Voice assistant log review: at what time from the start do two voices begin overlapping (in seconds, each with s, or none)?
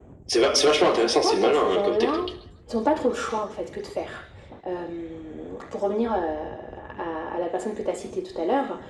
0.9 s